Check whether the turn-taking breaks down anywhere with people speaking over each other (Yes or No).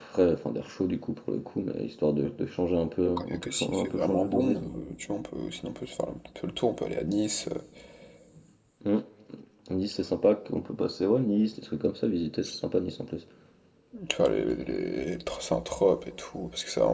Yes